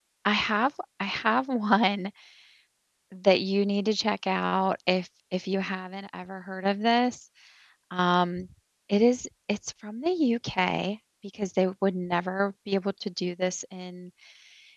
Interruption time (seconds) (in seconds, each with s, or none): none